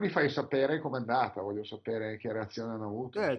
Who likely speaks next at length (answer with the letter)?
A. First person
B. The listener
B